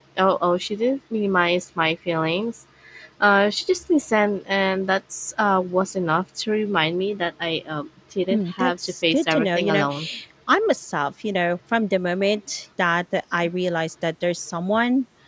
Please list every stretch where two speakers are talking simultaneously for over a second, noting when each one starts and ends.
8.3-9.9

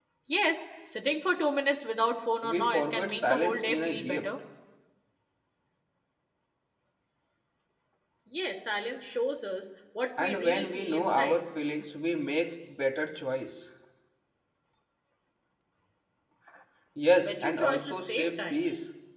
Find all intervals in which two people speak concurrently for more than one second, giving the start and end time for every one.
2.4-4.3, 10.2-11.4, 17.2-18.7

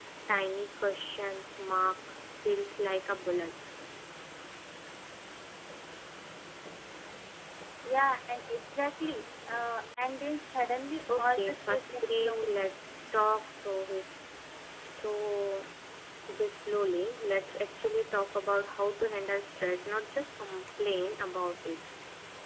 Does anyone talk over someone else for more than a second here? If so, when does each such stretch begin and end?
11.2-12.5

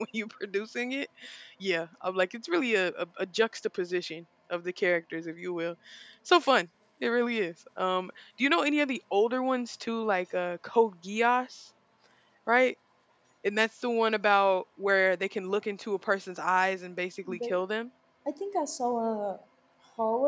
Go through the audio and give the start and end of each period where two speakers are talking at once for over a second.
none

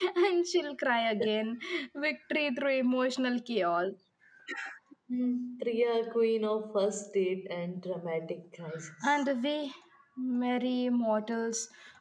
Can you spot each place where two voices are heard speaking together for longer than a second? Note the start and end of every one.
none

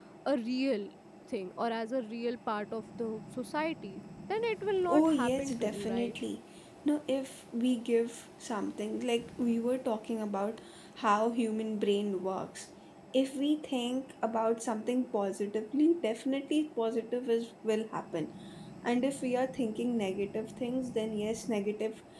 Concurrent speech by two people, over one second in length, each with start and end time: 4.9-6.1

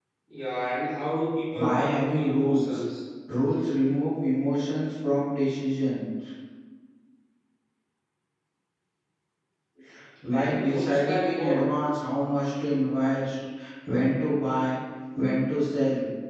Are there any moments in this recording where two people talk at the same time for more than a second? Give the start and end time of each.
1.5-2.8, 10.3-11.7

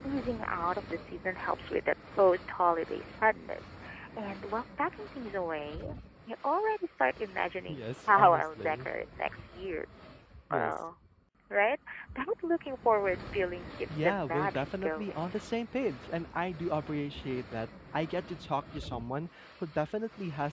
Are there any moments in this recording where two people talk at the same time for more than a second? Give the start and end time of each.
7.7-8.9, 13.9-15.2

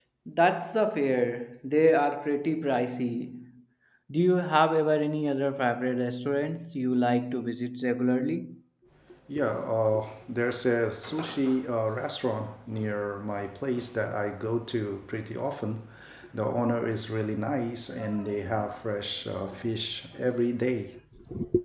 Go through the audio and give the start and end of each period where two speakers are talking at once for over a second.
none

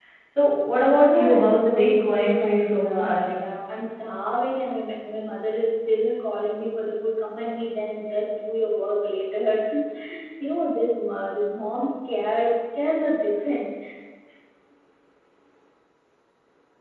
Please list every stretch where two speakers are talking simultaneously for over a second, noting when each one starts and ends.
0.9-3.2

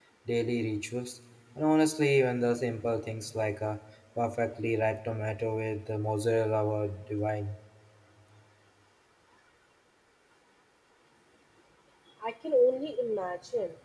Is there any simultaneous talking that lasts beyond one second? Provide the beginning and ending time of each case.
none

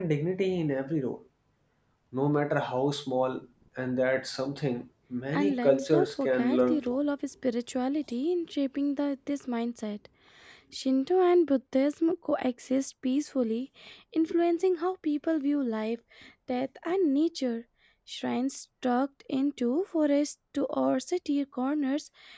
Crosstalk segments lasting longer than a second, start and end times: 5.3-6.8

